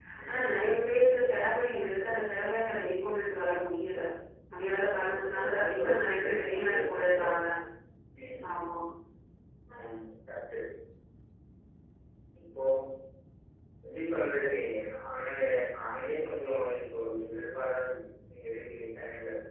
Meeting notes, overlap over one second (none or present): present